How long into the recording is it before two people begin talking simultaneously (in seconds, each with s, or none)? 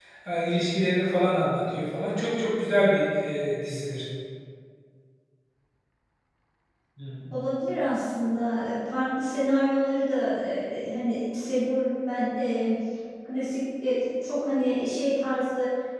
none